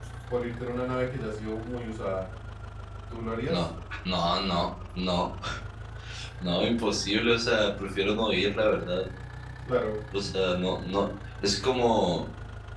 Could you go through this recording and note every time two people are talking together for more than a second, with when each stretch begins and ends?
none

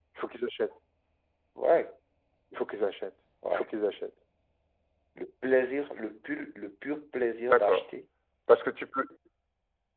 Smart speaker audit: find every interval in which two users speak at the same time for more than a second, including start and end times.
none

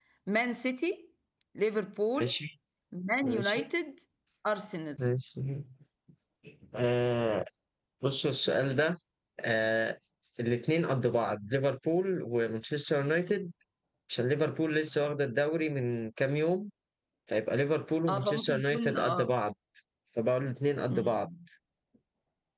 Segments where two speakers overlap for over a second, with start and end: 18.1-19.3

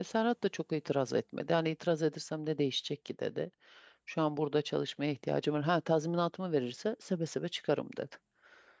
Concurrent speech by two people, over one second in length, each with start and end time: none

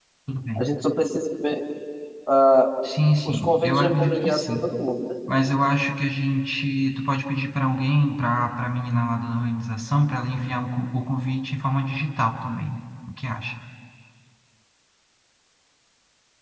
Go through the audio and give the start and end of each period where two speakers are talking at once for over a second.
3.2-4.7

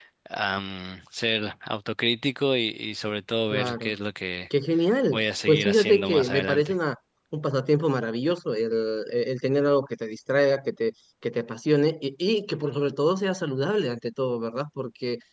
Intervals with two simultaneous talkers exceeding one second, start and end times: 5.1-6.8

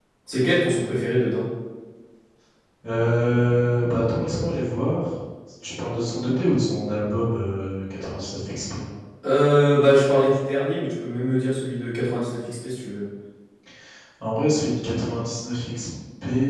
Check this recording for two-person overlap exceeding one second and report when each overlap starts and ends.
none

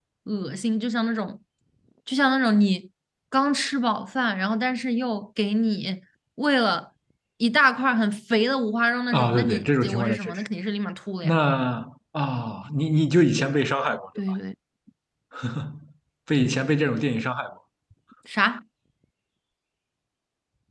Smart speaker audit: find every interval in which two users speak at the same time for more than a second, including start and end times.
9.1-10.4

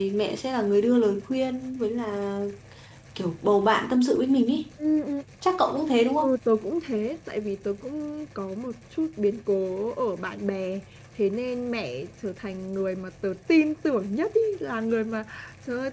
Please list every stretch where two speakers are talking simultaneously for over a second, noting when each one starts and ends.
none

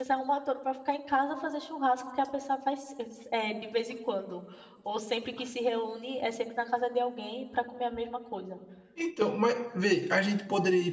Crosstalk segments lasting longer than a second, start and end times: none

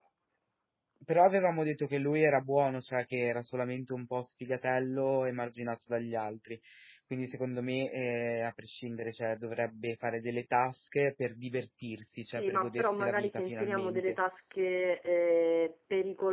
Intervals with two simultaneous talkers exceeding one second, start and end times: 12.3-14.2

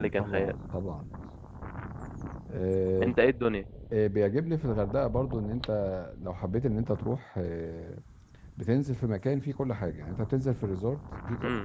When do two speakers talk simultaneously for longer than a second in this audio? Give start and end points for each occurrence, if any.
none

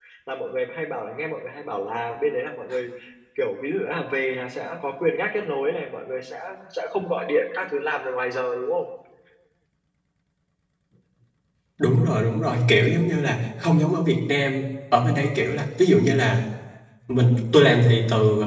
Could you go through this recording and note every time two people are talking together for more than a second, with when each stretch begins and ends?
none

